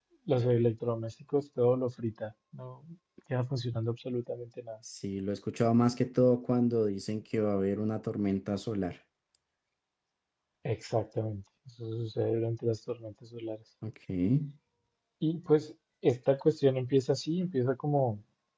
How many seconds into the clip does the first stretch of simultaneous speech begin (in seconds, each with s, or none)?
none